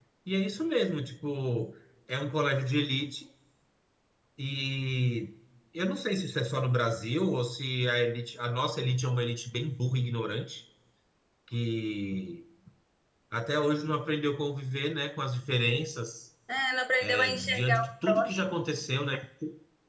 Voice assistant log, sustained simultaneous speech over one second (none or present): present